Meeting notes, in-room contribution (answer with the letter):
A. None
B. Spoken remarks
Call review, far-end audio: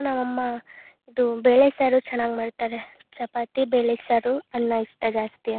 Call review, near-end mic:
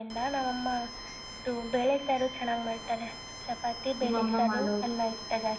B